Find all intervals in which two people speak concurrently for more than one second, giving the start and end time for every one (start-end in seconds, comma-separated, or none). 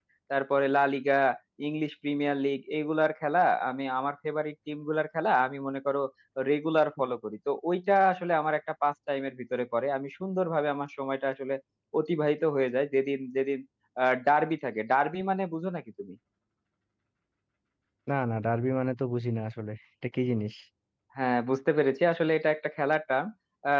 none